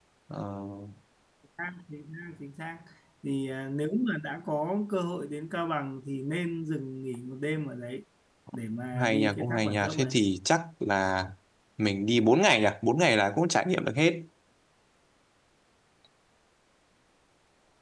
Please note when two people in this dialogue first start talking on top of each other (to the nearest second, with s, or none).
9 s